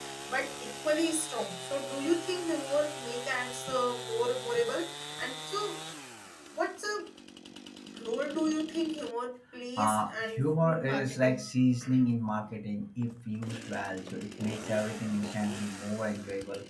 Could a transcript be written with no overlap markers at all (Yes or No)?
No